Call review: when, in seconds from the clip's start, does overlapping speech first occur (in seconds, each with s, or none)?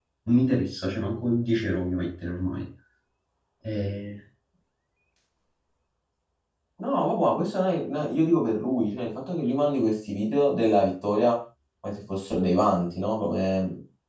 none